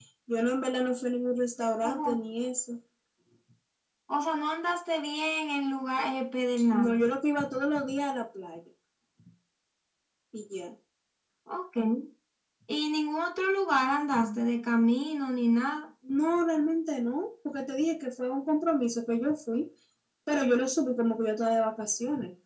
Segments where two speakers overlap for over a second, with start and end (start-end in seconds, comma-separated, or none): none